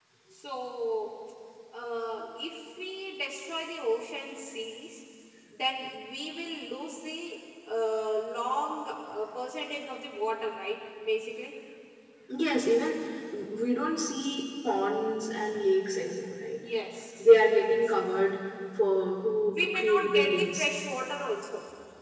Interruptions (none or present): present